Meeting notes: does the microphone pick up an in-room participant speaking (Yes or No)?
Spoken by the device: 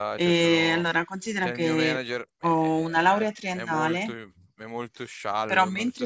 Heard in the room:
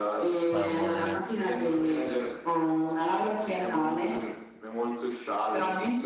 Yes